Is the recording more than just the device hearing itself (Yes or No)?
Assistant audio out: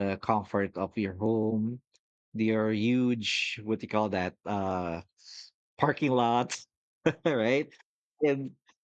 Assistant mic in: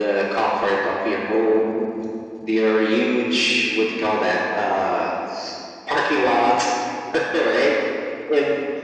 No